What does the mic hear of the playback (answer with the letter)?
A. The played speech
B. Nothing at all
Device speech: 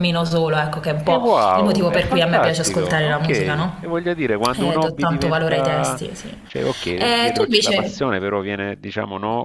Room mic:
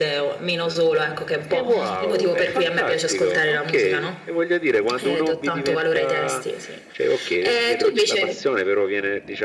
A